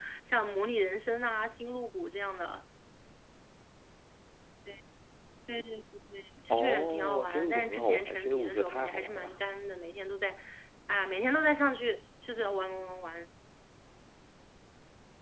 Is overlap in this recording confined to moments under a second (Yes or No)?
No